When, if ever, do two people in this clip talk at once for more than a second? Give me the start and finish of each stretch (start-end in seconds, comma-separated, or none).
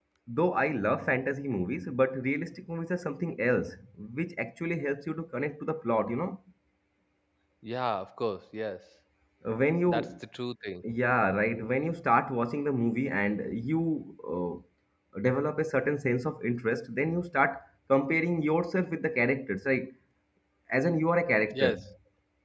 none